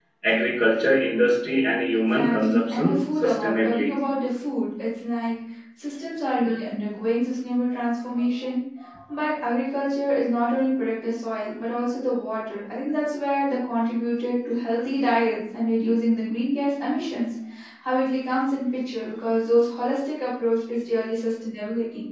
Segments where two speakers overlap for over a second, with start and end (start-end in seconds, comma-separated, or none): 2.1-4.0